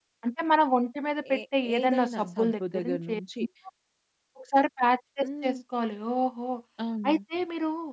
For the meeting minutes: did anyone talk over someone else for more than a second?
Yes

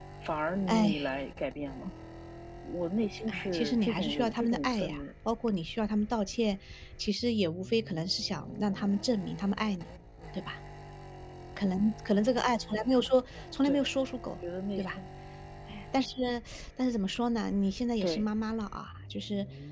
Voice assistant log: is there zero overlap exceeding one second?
No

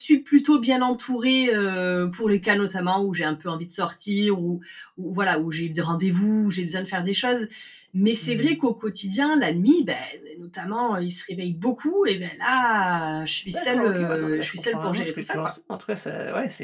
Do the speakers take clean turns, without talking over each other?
No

